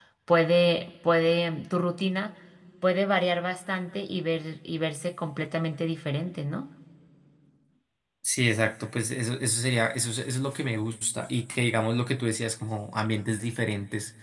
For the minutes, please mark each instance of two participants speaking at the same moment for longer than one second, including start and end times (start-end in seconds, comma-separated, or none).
none